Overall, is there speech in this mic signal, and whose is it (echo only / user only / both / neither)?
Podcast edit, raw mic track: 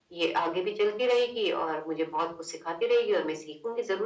echo only